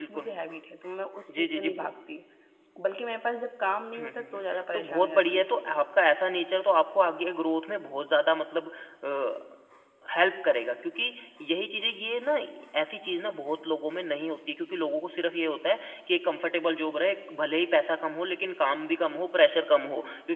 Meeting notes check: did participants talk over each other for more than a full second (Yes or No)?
Yes